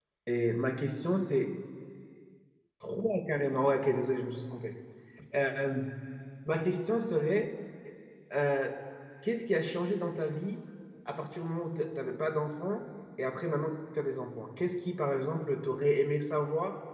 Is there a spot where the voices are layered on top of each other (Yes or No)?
No